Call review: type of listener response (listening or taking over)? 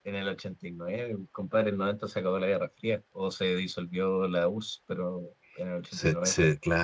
taking over